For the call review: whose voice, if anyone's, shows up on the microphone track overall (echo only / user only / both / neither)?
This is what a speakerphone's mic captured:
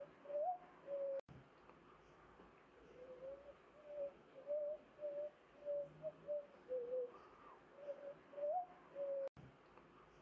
neither